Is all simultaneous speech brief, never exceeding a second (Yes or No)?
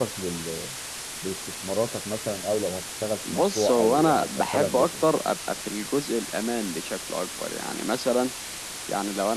No